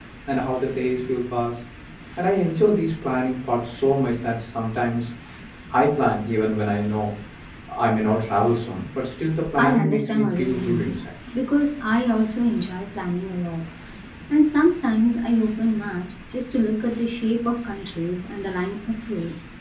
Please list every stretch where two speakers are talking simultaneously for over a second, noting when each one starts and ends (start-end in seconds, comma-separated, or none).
9.6-10.9